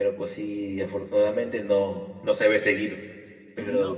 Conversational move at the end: listening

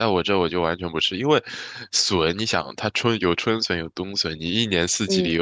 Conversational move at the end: listening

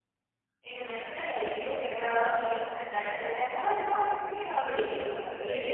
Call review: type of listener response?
taking over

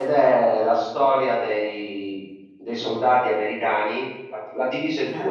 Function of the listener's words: listening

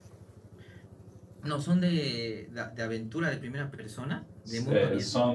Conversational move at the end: taking over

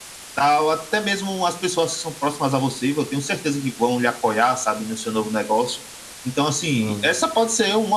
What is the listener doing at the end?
listening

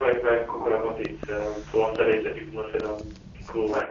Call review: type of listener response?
listening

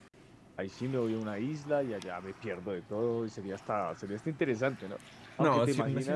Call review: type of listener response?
taking over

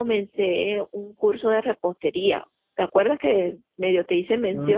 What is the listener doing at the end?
taking over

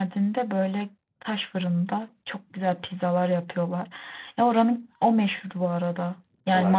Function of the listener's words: listening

